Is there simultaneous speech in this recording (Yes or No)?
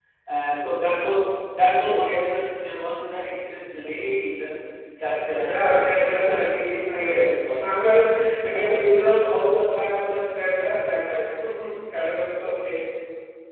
Yes